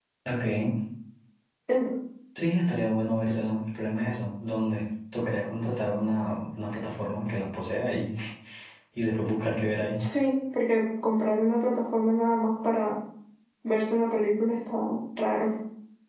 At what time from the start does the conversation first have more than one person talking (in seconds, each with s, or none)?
none